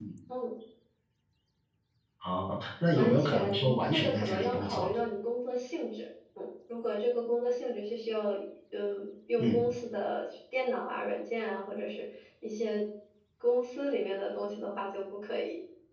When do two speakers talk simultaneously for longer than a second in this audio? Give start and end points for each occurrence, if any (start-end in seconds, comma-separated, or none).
3.0-4.9